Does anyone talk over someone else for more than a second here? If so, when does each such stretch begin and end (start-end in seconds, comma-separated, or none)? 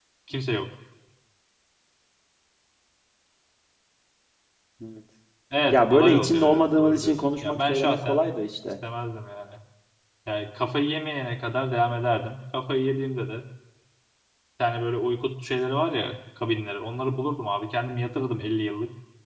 5.7-8.2